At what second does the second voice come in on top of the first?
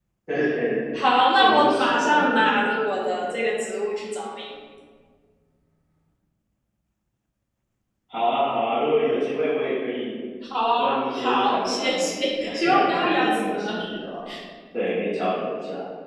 1 s

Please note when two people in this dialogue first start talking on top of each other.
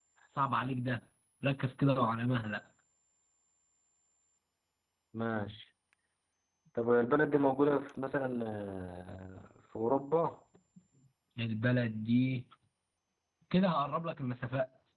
none

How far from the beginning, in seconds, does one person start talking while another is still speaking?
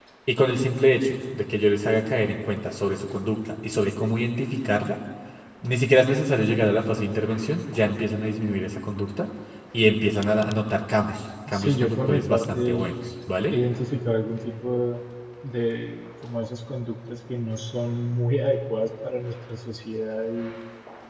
11 s

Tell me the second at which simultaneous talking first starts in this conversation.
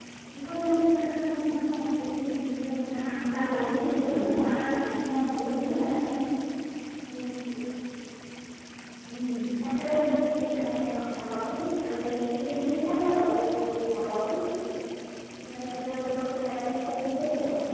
3 s

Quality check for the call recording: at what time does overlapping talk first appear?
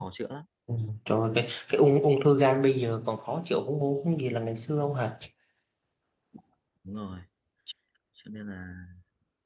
none

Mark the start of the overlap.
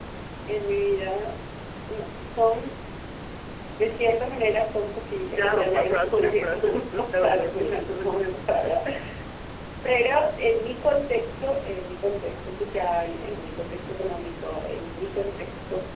5 s

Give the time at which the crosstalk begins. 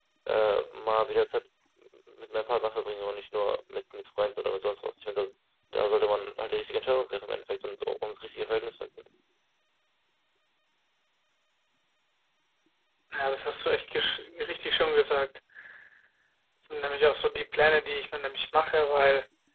none

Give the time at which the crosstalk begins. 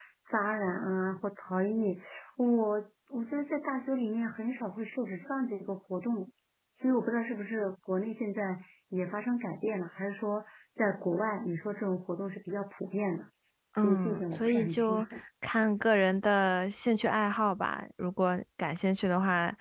14 s

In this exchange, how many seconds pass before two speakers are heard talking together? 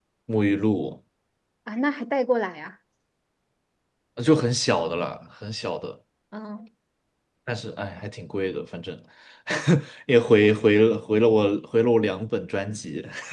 none

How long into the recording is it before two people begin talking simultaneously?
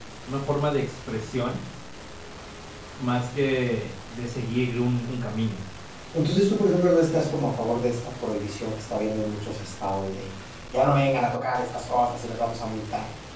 none

